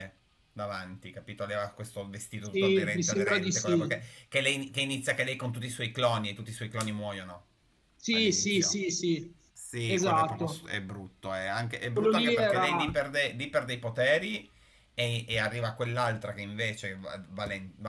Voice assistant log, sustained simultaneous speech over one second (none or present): present